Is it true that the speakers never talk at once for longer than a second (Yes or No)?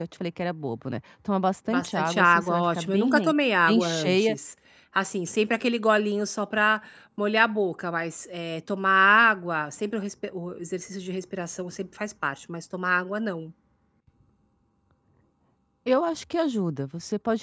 No